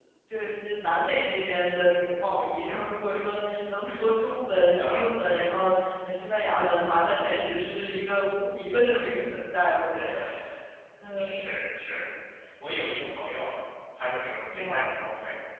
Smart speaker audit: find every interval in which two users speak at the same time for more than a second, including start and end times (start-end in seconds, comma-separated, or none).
none